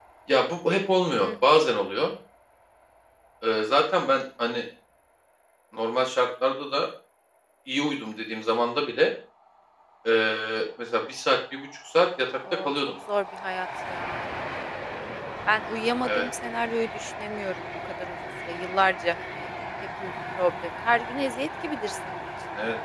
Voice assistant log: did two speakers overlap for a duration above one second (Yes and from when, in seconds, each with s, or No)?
No